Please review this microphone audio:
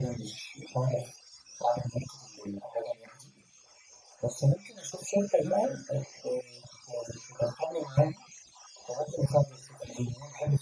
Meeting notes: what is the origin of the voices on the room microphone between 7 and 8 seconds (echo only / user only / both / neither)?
echo only